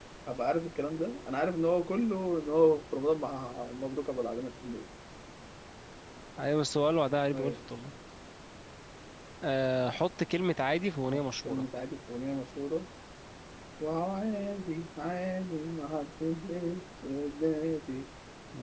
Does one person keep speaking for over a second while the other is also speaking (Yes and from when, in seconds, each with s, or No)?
No